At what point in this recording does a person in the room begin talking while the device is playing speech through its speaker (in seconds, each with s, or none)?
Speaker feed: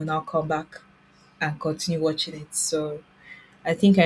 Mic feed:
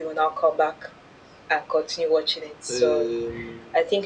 2.7 s